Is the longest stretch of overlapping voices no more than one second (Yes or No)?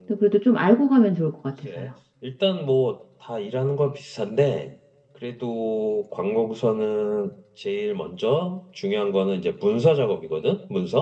Yes